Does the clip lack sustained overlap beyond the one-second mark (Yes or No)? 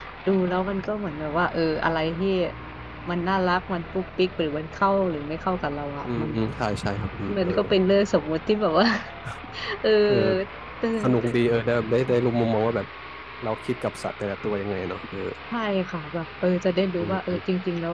Yes